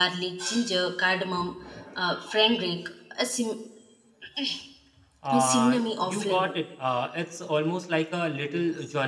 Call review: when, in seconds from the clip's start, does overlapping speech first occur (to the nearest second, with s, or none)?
5 s